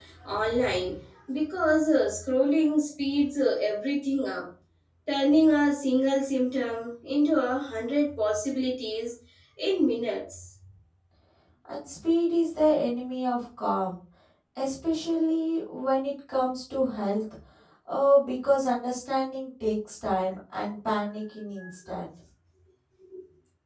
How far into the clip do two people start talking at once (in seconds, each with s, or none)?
none